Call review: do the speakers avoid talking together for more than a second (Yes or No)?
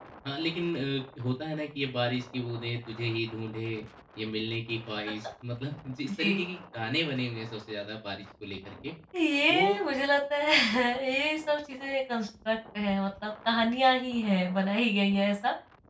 Yes